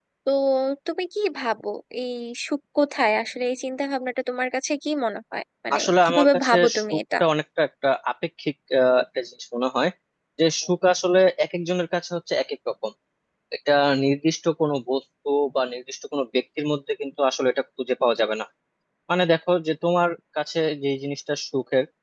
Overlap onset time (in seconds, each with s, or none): 5.7 s